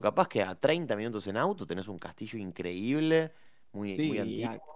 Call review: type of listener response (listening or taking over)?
taking over